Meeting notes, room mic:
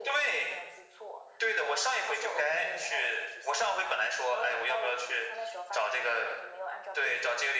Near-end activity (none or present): none